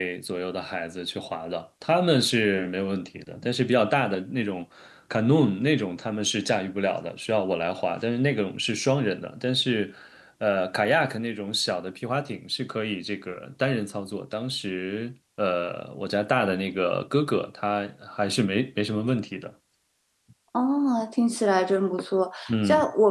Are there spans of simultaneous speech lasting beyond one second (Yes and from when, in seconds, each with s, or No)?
No